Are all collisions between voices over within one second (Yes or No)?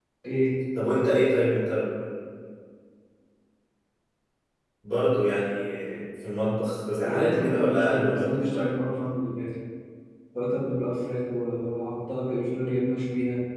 No